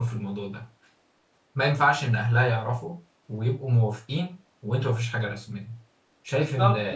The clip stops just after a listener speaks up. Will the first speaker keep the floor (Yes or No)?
No